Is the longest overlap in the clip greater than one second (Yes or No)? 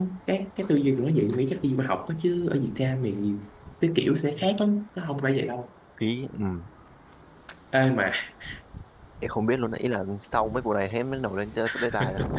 No